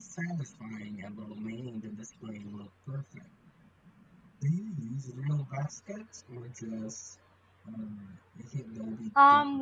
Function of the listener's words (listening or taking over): taking over